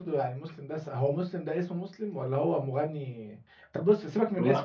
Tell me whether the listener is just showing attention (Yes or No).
Yes